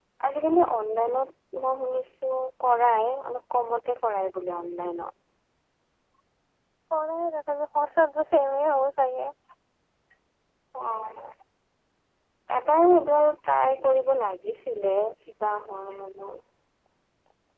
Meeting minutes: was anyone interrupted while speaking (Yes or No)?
No